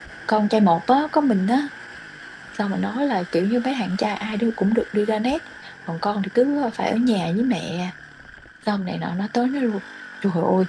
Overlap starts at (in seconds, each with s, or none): none